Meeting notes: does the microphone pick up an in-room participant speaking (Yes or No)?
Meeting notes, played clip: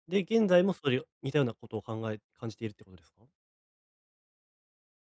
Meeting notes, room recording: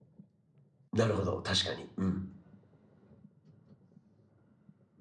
Yes